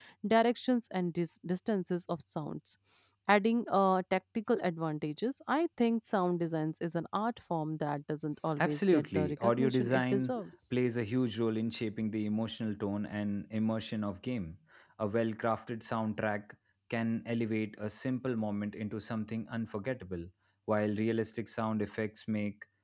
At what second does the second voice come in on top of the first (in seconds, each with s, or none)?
8.6 s